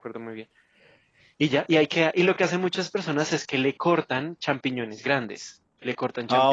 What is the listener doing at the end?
listening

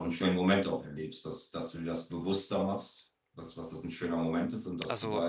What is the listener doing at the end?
listening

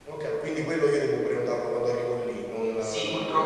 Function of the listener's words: taking over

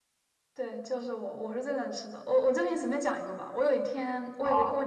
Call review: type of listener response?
listening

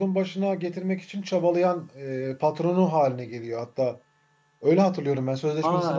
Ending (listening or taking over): taking over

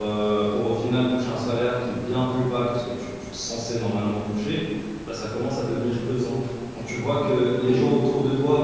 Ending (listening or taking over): listening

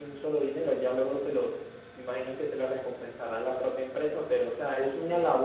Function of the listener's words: listening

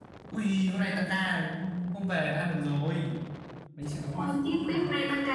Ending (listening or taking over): taking over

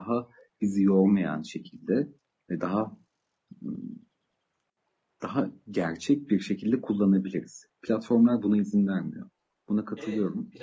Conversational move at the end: taking over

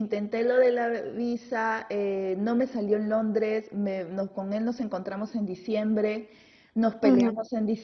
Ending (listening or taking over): listening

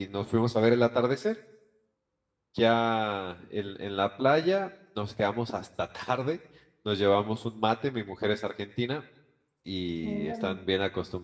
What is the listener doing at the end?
listening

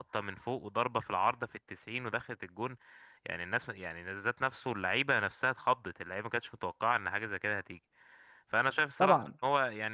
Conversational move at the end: listening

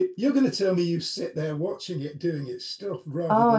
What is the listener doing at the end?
taking over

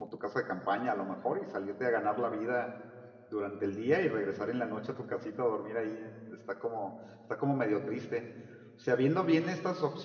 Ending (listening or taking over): listening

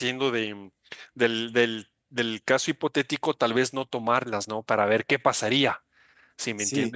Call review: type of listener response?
taking over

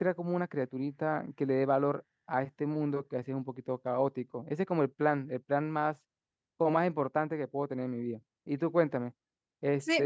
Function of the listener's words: taking over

